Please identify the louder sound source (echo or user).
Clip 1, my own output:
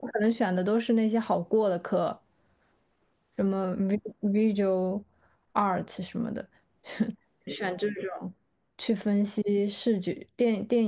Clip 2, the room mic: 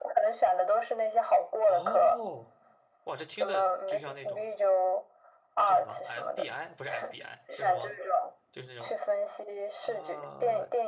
echo